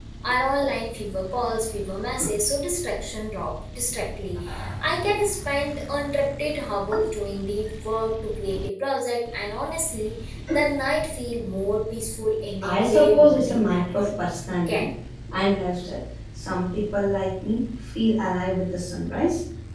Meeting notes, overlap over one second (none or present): present